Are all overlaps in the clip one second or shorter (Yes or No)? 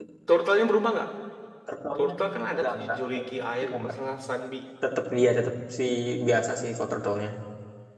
Yes